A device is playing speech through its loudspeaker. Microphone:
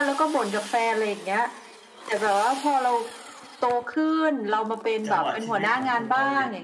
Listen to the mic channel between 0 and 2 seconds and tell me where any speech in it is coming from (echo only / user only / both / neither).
echo only